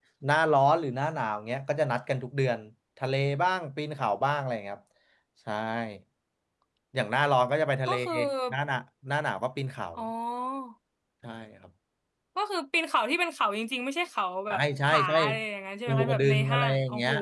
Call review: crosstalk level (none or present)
present